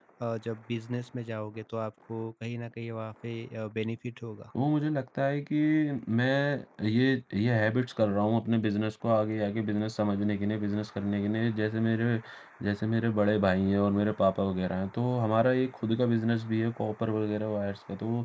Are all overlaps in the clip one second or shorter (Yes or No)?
Yes